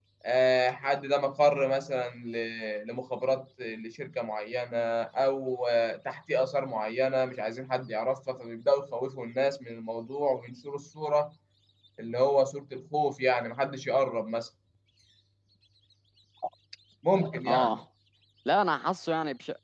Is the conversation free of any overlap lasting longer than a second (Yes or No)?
Yes